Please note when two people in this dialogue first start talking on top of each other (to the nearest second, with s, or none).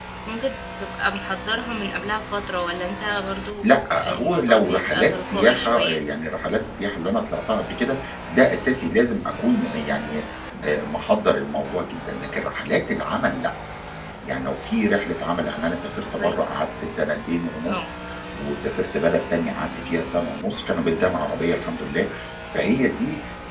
4 s